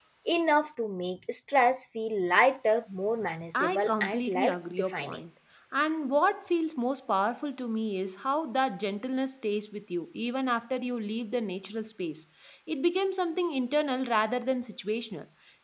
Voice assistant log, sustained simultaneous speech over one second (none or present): present